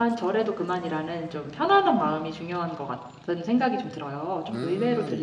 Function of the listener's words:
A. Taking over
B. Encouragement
A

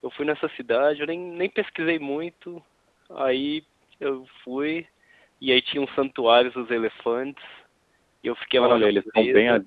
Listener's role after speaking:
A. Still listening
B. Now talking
B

